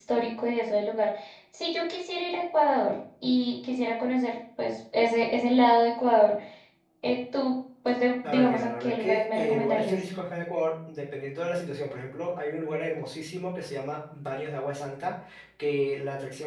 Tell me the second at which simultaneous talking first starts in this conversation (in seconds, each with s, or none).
8.2 s